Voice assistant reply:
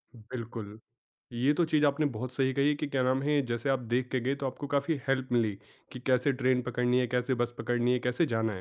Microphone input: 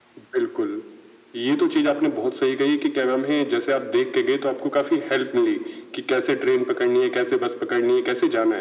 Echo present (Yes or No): Yes